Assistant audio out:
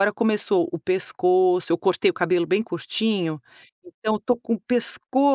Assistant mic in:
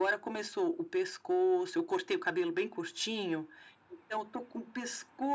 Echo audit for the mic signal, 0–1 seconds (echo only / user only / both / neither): echo only